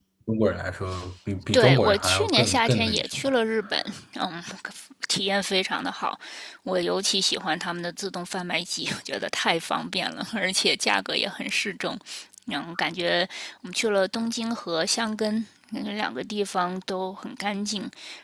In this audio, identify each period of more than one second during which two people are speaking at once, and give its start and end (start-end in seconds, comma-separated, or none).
1.5-3.3